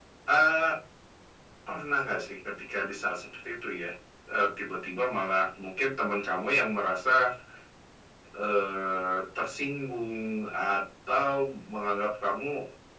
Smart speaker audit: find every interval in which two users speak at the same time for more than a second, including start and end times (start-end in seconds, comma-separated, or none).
none